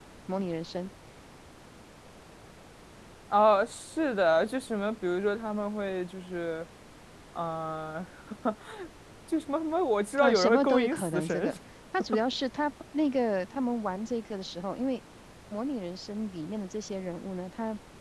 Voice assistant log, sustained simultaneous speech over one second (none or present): present